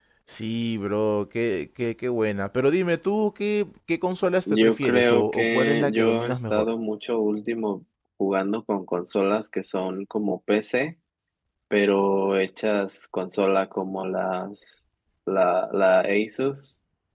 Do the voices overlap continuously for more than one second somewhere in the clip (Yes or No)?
Yes